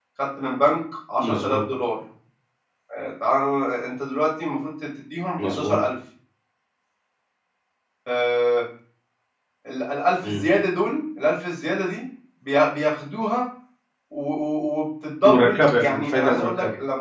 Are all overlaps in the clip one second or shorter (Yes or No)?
No